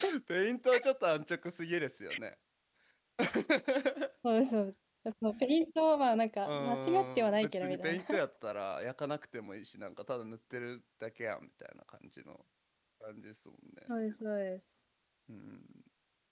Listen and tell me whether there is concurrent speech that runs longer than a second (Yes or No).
Yes